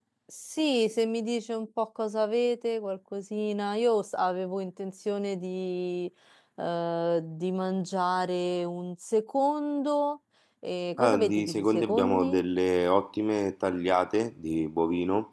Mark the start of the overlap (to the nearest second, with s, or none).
11 s